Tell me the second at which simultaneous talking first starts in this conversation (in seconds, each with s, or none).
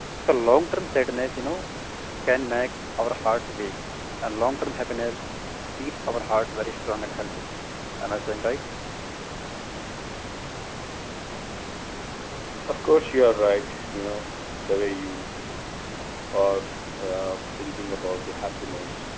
none